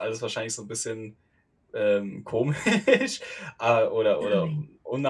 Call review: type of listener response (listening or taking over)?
listening